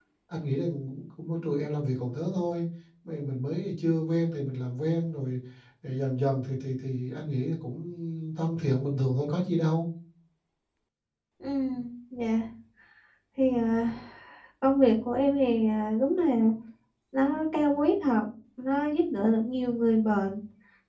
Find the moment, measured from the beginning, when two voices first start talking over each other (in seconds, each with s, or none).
none